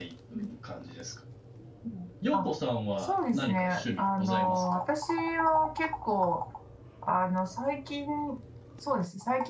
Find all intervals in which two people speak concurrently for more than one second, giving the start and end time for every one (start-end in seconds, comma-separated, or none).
3.0-4.8